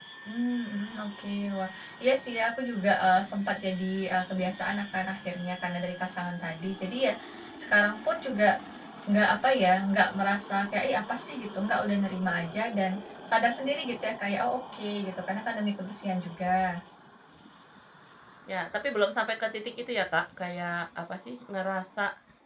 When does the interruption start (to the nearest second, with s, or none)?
none